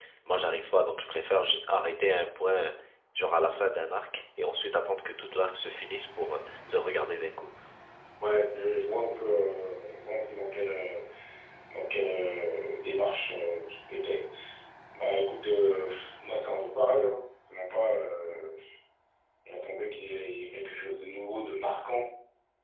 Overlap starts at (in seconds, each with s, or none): none